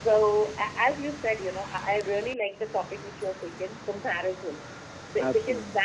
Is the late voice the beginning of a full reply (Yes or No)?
No